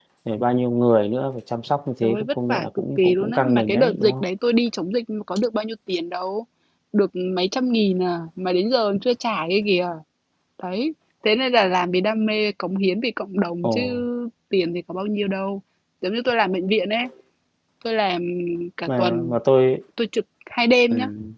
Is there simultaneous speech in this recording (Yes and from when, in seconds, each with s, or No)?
Yes, from 2.0 s